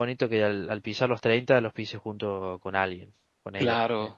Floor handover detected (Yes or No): Yes